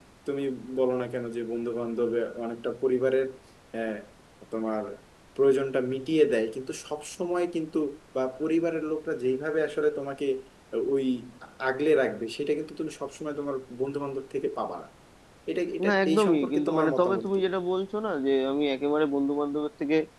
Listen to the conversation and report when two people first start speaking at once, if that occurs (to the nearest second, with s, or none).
16 s